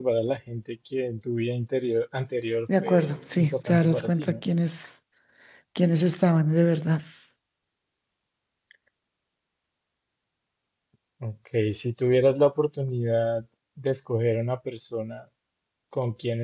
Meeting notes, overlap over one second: present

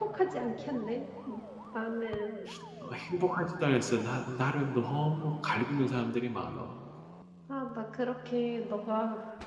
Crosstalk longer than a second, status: none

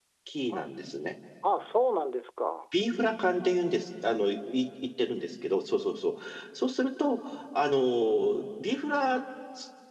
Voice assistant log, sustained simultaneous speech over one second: none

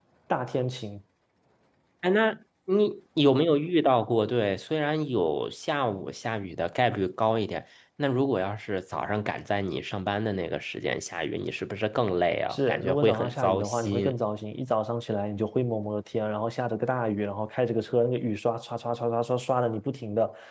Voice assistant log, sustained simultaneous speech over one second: present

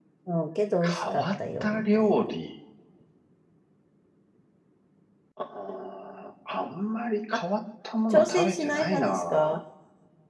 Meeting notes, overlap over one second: present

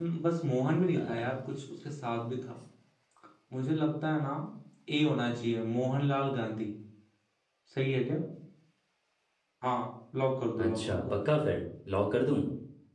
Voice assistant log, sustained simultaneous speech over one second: none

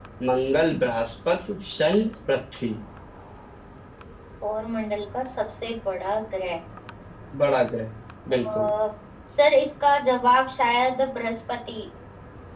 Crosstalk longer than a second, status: none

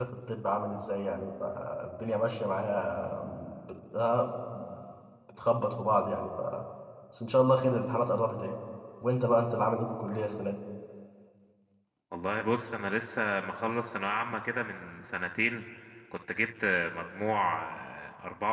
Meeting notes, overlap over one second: none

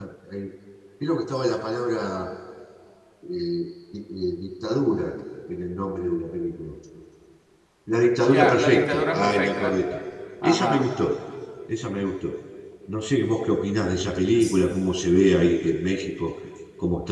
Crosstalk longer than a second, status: present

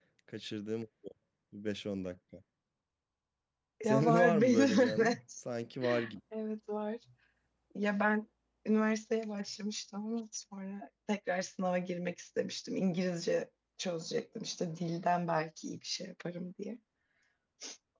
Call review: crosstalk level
present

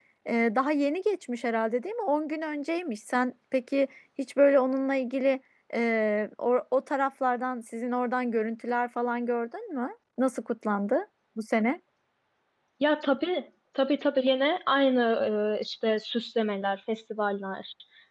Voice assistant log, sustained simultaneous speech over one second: none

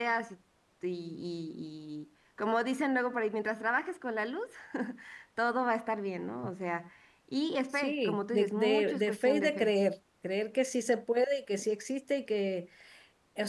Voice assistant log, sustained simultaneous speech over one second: present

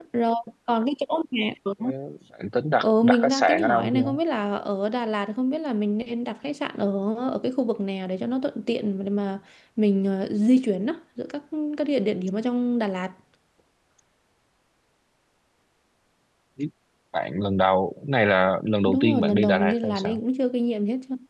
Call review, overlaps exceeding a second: present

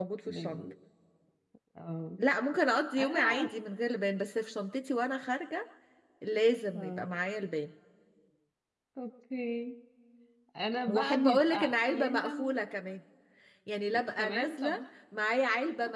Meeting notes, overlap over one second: present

